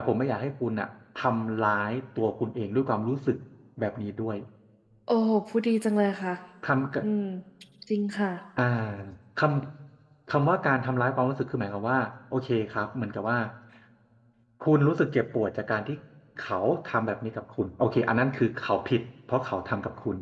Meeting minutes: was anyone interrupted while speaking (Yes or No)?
No